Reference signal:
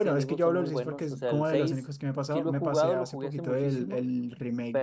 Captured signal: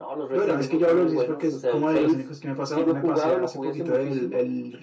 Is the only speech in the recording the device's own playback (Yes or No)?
Yes